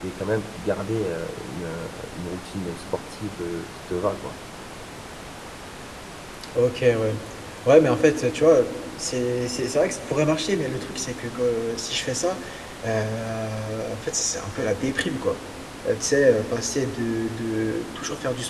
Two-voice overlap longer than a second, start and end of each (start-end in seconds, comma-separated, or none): none